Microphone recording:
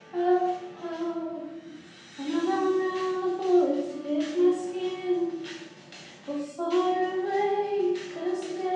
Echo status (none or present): none